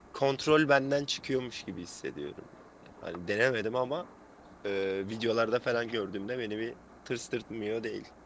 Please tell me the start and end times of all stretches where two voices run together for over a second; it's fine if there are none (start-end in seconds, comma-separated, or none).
none